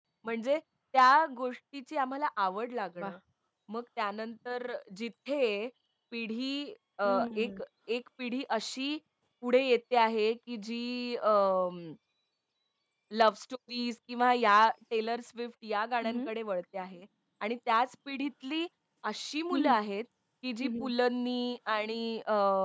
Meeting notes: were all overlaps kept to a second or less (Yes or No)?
Yes